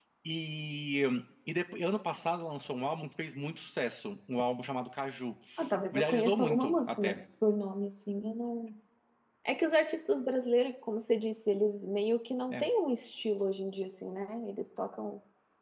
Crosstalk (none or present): present